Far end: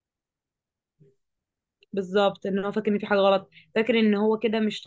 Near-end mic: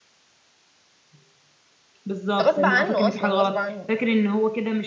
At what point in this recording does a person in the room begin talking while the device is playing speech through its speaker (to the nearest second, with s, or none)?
2 s